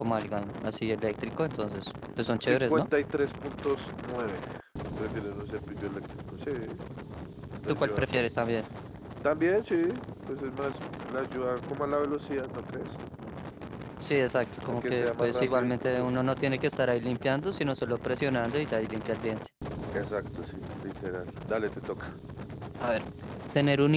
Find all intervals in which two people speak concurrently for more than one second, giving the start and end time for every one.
14.7-16.1

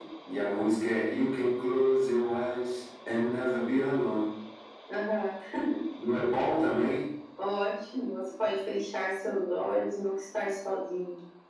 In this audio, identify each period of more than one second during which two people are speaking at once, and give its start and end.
none

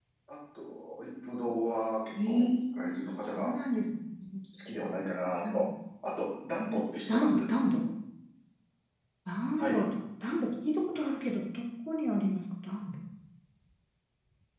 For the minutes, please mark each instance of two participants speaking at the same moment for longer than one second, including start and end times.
2.3-3.5

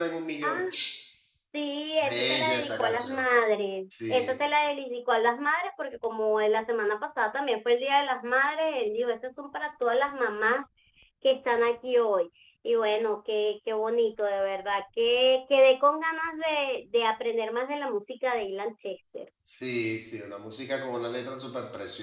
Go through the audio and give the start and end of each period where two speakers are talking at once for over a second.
2.0-3.3

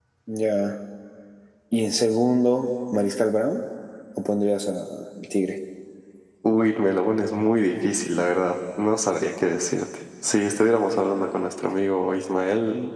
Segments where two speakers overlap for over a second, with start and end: none

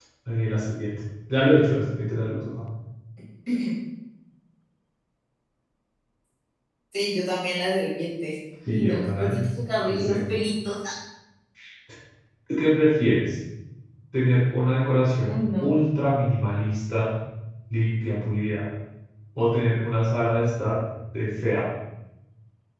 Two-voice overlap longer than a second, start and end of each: 8.7-10.2

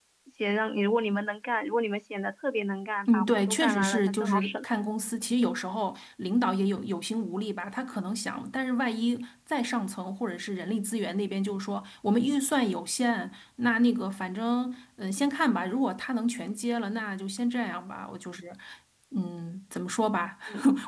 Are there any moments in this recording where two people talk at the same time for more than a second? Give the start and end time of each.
3.1-4.7

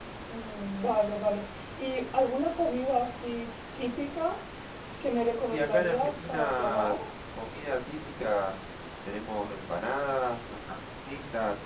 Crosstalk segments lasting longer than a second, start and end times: 5.5-7.0

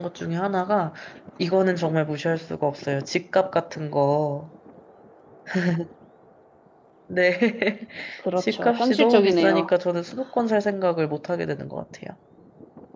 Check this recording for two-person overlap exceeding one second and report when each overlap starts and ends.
8.4-9.7

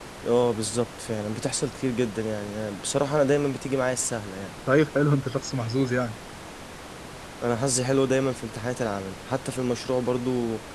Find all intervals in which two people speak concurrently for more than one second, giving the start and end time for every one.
none

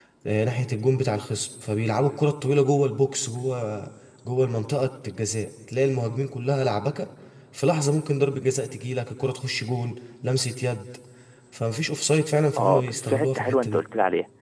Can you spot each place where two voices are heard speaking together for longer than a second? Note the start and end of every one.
12.6-13.8

